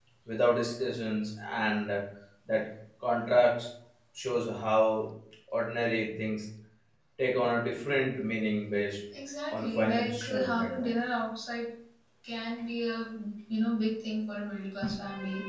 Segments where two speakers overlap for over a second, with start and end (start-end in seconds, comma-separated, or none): 9.5-10.9